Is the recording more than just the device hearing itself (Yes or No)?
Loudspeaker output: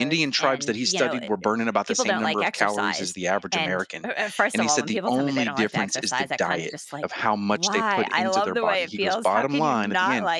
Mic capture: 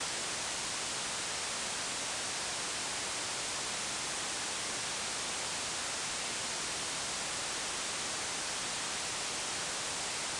No